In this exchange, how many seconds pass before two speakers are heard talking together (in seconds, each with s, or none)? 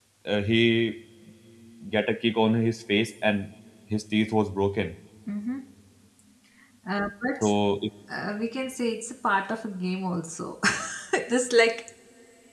none